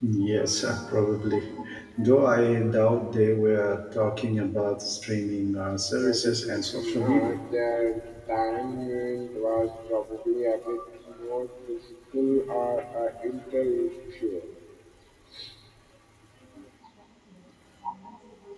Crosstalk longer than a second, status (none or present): present